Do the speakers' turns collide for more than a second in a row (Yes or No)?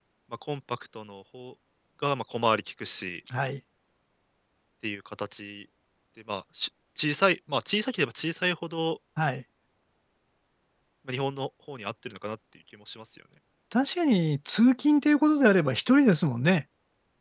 No